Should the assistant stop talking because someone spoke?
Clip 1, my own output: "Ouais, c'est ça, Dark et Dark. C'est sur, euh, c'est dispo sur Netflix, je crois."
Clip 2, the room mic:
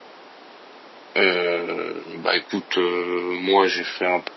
Yes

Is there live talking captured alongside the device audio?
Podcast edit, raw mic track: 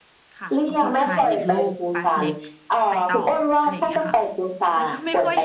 Yes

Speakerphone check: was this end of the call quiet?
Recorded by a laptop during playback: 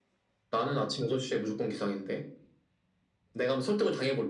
Yes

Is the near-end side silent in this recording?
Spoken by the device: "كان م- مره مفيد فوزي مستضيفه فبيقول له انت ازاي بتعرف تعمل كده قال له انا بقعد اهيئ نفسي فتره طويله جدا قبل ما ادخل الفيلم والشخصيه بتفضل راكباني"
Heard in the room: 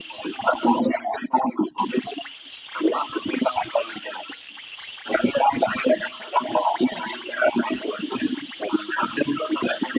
Yes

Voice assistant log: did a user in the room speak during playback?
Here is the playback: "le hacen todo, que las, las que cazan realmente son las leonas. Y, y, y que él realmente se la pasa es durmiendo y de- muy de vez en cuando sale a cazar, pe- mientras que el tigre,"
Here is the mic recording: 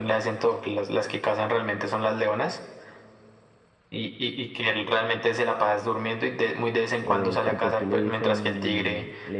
Yes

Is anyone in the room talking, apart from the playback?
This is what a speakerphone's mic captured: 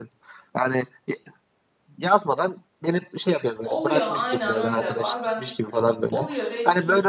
Yes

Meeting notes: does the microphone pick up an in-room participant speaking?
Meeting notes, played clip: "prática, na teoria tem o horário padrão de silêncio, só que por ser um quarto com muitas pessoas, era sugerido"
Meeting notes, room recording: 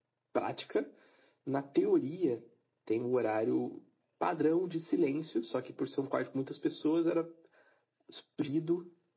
No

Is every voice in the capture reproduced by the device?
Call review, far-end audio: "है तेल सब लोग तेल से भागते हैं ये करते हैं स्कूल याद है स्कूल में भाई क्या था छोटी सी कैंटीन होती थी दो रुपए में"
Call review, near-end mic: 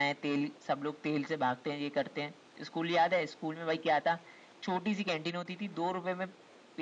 Yes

